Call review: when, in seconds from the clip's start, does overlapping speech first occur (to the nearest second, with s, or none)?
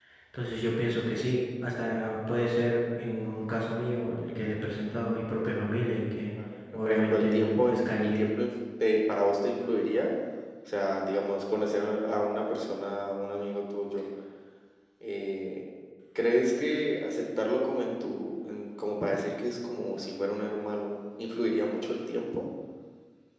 7 s